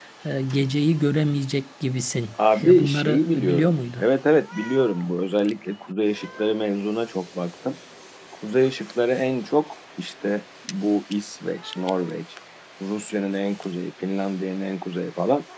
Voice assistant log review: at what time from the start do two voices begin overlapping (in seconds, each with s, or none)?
2.4 s